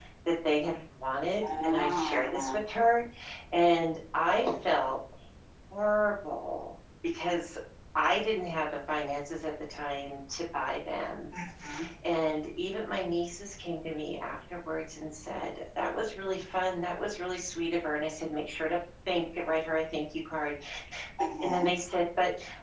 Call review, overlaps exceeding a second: present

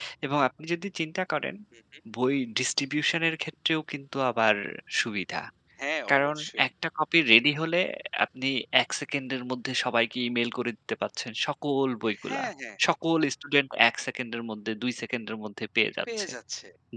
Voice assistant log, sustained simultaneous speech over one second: none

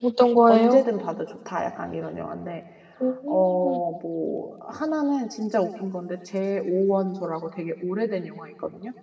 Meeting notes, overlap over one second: none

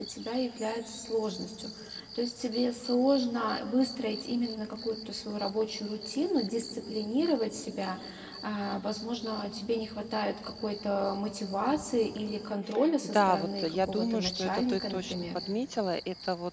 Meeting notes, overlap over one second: present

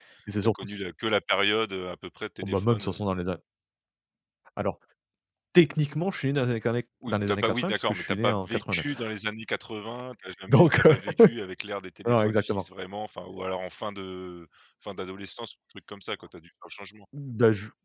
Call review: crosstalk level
present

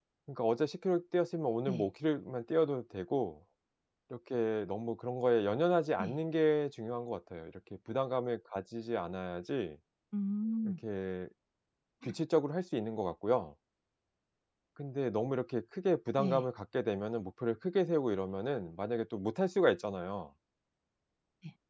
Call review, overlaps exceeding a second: none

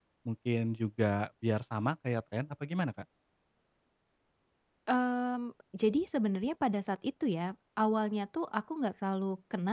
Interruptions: none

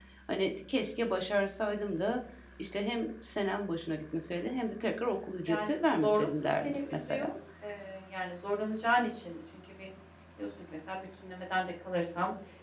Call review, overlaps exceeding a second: present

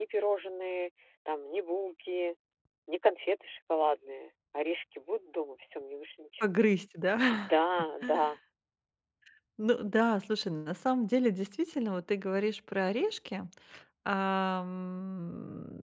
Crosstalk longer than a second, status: none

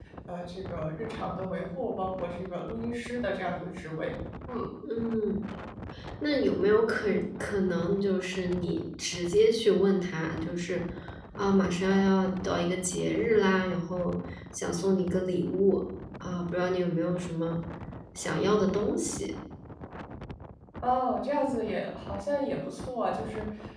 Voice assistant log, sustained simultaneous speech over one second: none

